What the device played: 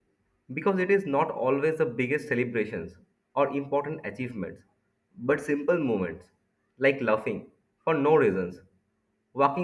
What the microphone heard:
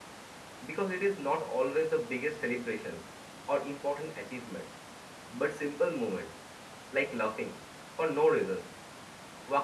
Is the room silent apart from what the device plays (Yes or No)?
Yes